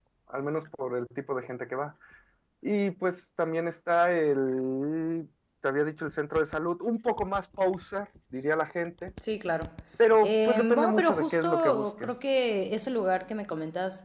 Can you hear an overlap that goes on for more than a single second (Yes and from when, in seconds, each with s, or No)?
Yes, from 10.2 s